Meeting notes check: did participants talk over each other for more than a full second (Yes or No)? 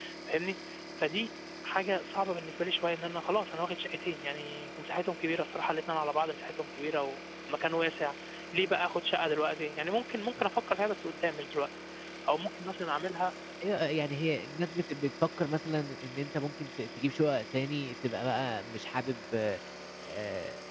No